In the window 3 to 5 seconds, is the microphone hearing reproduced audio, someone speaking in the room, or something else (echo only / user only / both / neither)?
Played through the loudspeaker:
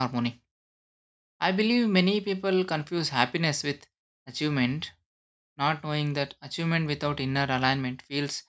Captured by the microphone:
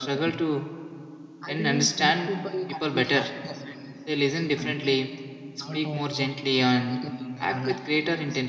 both